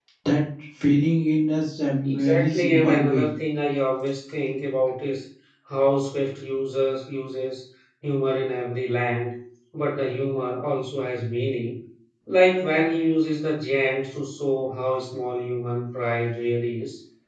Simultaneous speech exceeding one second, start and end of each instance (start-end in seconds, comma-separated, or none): 2.0-3.3